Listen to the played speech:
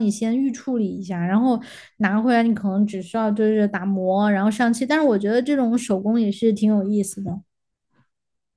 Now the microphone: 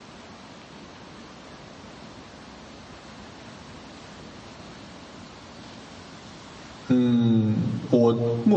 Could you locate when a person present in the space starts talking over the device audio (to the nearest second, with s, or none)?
7 s